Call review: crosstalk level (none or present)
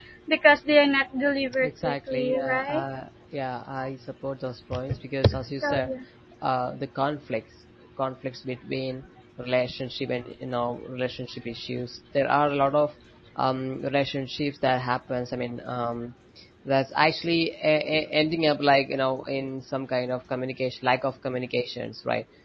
present